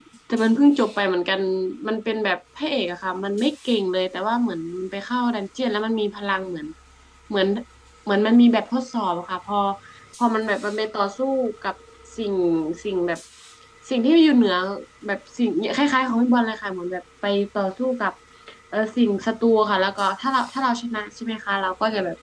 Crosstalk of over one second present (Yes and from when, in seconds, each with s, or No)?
No